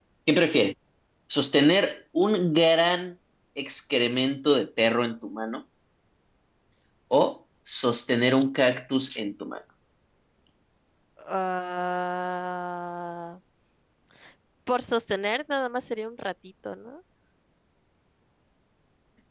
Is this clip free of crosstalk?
Yes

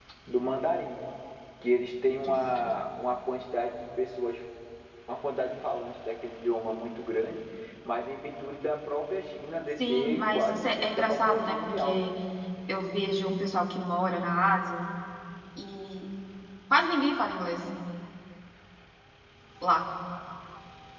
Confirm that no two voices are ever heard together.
No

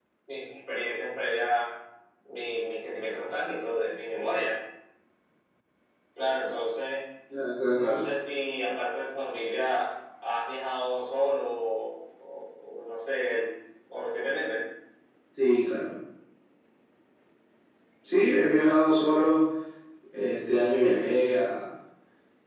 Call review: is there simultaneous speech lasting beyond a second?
No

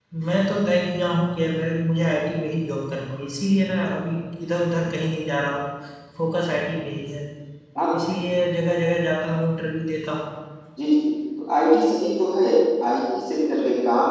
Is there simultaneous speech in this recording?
No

